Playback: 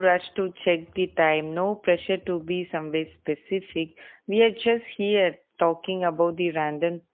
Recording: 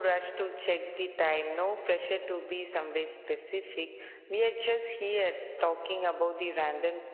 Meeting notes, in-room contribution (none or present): none